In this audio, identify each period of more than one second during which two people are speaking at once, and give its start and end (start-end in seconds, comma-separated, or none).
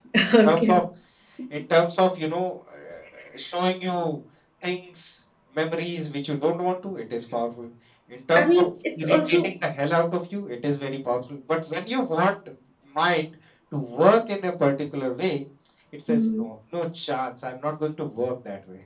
none